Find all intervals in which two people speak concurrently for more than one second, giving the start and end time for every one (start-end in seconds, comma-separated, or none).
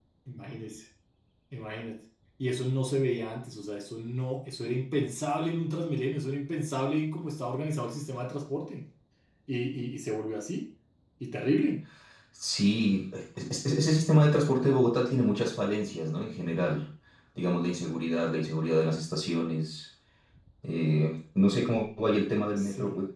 none